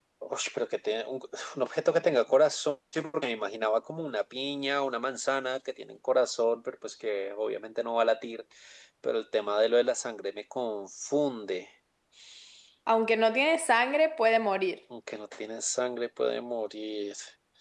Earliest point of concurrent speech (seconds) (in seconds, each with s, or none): none